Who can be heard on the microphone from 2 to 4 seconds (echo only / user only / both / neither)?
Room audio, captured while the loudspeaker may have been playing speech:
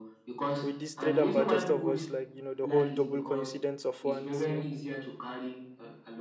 both